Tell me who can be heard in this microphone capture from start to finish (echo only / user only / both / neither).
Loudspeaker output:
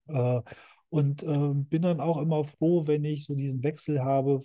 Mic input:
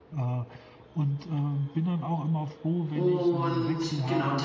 both